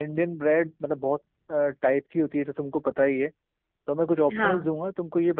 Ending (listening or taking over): listening